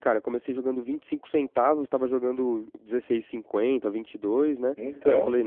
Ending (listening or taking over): listening